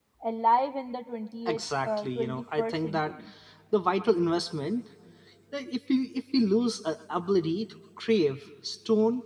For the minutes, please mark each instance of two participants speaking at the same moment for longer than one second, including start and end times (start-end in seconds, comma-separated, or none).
1.4-3.0